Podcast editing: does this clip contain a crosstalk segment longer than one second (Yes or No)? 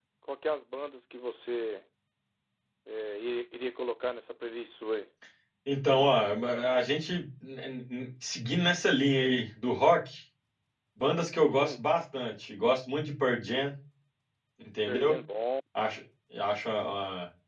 No